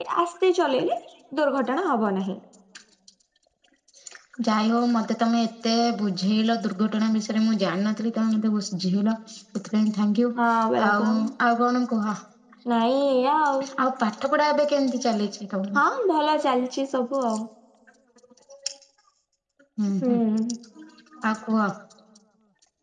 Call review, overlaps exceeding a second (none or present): none